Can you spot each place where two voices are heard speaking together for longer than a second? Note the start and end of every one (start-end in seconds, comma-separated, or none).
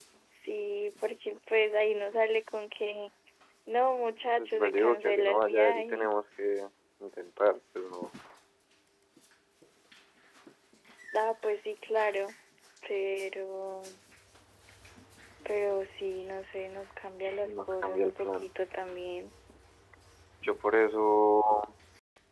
4.4-6.1, 17.2-18.5